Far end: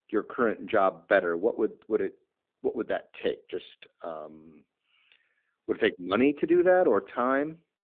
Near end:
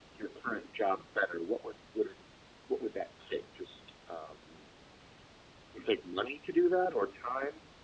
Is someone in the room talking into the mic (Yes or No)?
No